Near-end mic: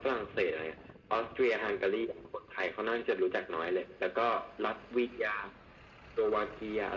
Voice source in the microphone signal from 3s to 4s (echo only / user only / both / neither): echo only